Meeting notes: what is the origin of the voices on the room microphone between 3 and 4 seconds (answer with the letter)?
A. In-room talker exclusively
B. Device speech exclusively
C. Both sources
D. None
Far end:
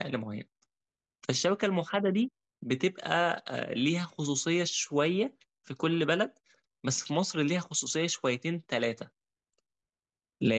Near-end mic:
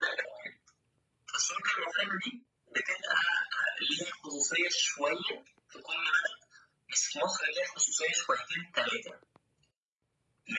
B